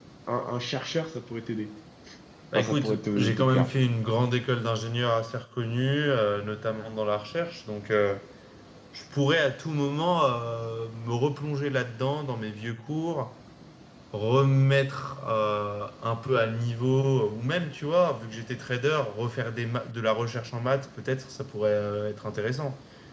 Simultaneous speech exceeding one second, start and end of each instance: 2.5-3.9

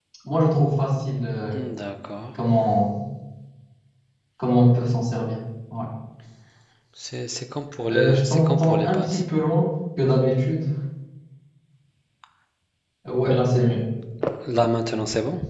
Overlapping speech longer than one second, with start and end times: 7.9-9.2

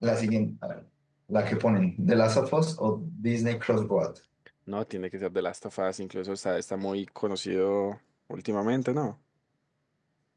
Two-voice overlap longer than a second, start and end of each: none

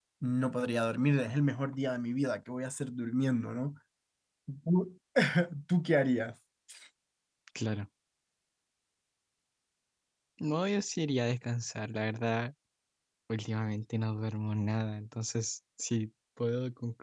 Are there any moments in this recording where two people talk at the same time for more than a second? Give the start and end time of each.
none

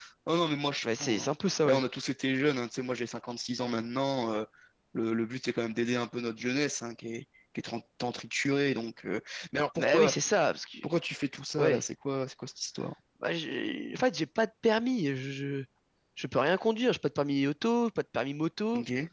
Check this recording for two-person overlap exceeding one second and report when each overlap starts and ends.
none

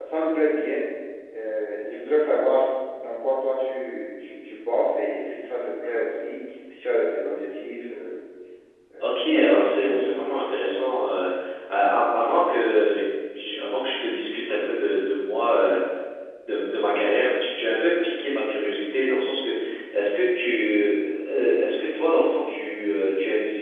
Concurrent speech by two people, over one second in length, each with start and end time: 9.0-10.9

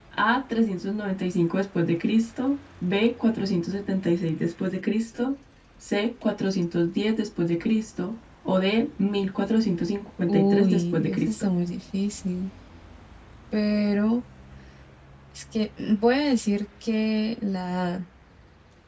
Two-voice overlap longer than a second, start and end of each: 10.3-11.5

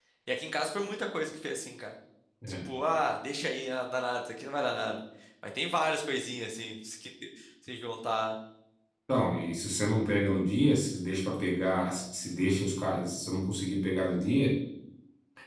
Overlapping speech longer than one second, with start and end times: none

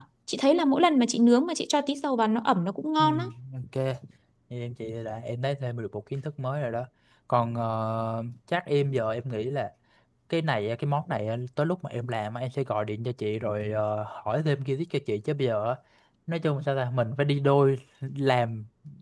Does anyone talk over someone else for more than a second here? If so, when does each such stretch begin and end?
none

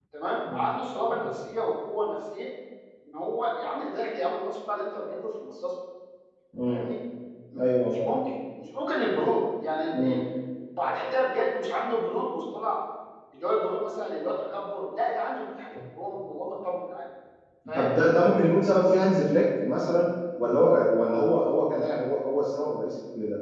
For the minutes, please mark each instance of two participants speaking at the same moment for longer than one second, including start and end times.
none

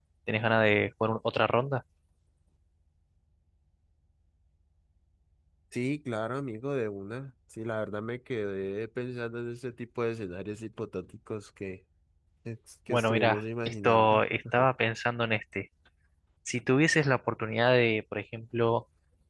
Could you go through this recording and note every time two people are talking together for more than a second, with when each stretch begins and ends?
12.9-14.2

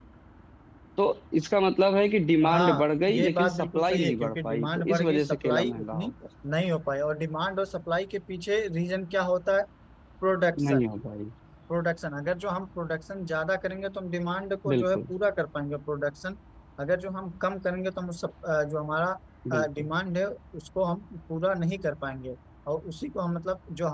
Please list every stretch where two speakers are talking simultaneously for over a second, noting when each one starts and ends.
2.5-6.0

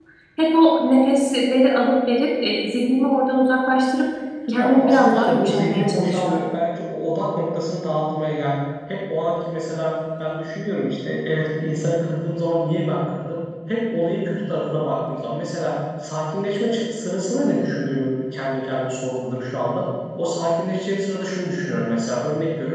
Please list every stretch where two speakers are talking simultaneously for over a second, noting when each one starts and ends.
4.5-6.4

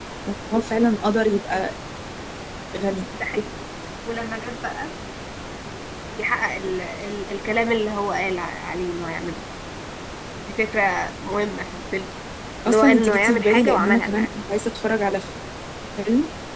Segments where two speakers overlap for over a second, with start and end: 12.7-14.3

